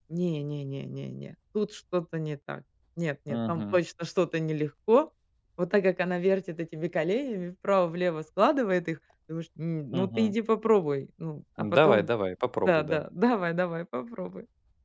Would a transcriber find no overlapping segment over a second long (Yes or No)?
Yes